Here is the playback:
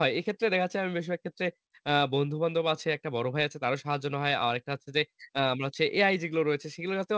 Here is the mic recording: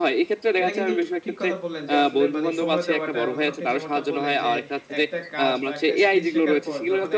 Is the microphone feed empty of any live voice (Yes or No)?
No